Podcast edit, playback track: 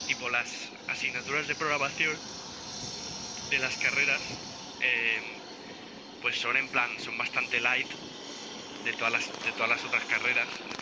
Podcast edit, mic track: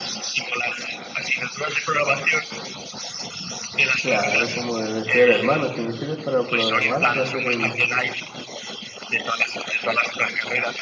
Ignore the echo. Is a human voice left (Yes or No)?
Yes